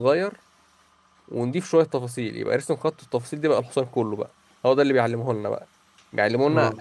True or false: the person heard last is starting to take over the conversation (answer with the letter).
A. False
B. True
A